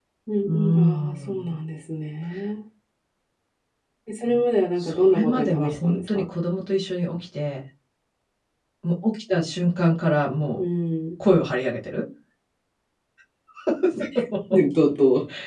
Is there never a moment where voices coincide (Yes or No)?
No